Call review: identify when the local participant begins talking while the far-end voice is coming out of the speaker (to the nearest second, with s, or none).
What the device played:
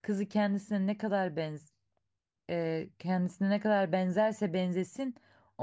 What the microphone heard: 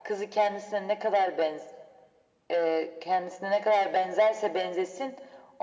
none